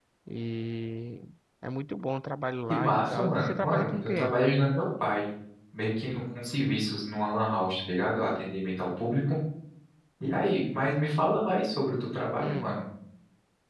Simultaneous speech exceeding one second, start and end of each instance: 2.7-4.3

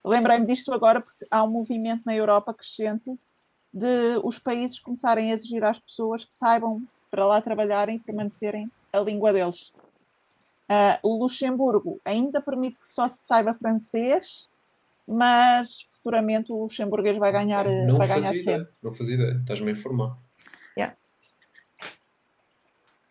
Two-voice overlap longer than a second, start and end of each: 17.3-18.6

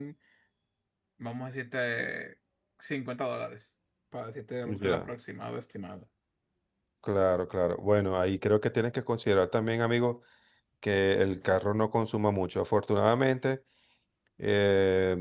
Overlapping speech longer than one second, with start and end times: none

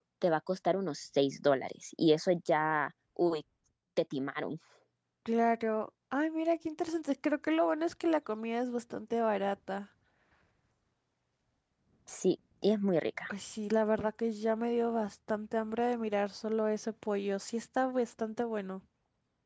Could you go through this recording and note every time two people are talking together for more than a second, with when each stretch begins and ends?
none

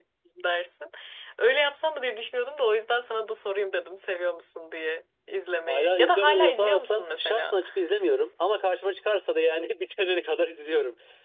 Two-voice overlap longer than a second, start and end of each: 5.7-7.5

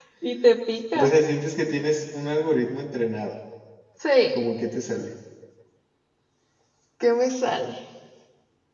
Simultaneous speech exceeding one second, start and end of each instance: none

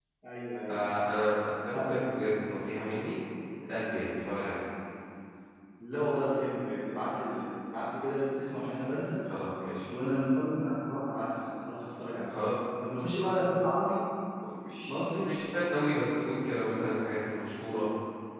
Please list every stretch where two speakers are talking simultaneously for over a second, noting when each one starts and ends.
none

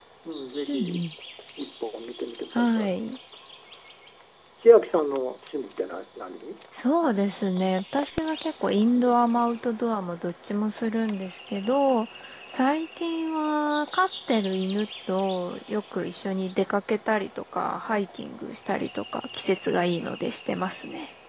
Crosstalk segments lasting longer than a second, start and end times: none

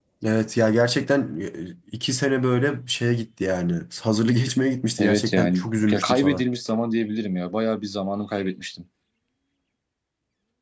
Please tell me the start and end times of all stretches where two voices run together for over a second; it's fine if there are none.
5.0-6.4

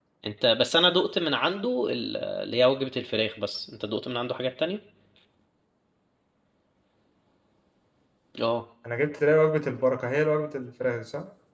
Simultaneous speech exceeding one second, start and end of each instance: none

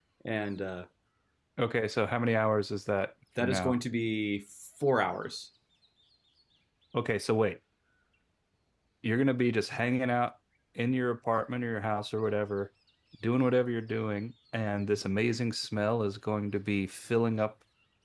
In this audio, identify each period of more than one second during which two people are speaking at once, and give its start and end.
none

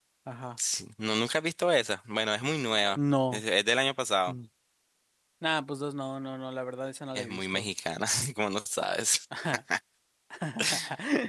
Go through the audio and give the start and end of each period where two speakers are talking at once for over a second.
none

